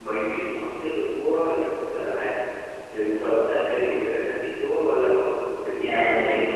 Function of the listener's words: taking over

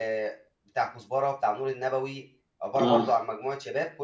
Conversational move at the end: listening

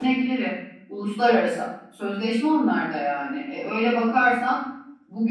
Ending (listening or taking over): listening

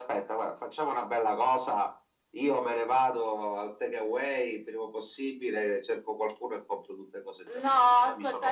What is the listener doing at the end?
taking over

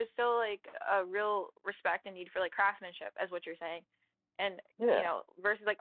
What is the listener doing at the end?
listening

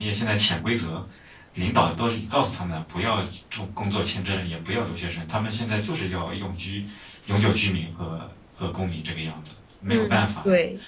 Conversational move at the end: taking over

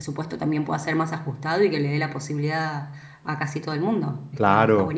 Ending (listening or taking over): taking over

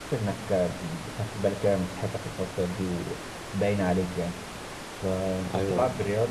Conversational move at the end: listening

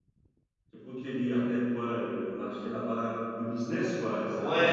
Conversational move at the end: taking over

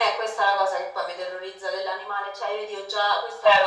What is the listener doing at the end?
listening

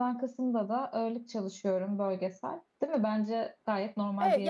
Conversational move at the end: taking over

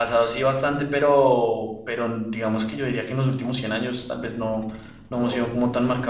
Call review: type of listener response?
listening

